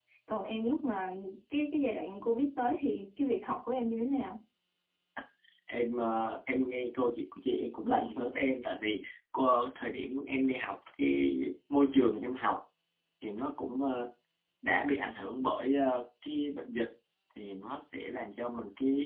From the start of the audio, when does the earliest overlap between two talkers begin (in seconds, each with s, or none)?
none